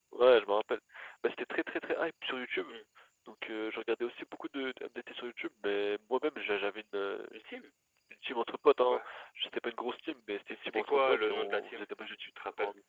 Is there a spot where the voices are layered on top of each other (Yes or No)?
Yes